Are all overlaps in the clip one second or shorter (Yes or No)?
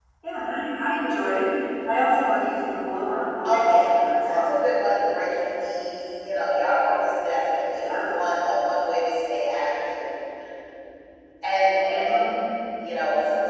Yes